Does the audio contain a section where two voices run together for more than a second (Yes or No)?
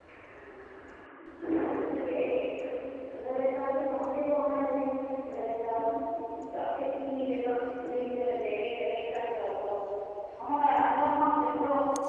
No